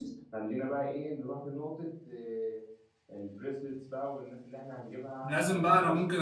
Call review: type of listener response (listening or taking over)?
taking over